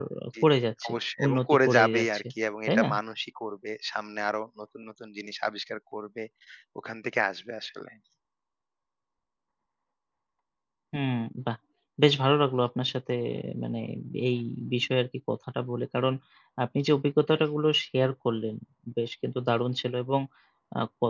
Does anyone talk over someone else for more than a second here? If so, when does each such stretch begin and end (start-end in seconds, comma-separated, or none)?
0.9-2.2